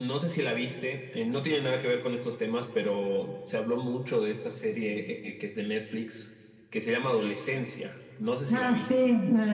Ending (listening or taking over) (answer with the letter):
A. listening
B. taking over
B